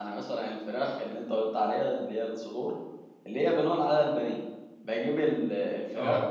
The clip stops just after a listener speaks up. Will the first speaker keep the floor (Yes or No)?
Yes